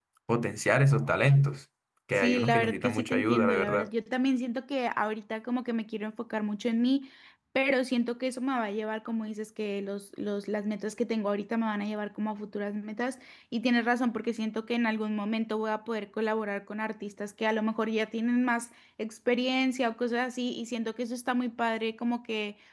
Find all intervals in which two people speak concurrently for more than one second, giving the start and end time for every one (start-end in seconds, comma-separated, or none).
2.1-3.9